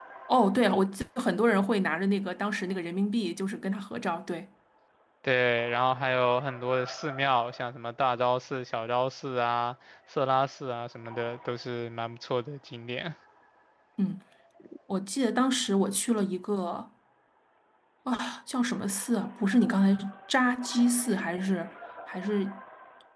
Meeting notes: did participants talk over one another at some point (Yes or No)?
No